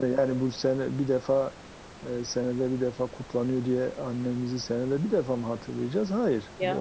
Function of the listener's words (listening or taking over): listening